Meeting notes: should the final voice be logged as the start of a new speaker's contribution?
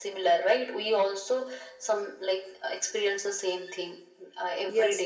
Yes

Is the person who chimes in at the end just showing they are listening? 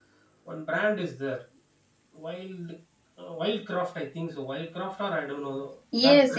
No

